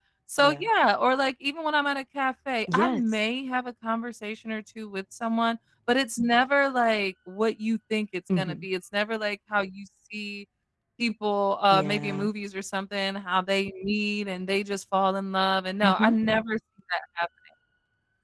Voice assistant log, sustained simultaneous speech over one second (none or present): none